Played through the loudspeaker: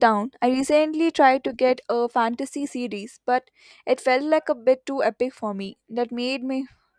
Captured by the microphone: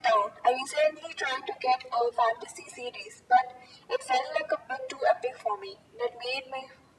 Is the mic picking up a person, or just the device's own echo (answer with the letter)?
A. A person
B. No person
B